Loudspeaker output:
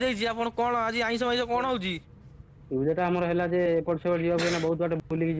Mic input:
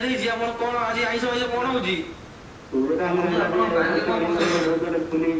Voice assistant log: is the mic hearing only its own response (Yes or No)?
No